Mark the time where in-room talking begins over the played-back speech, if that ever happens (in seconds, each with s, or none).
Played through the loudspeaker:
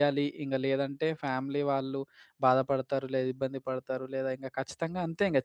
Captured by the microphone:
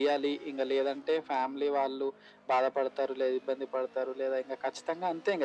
none